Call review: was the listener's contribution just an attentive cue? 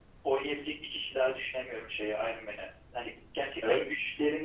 Yes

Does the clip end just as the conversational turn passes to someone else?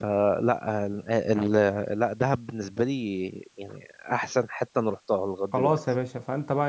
Yes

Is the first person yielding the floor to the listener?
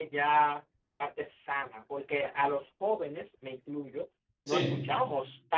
No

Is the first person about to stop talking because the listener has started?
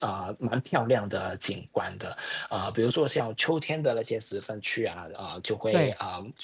No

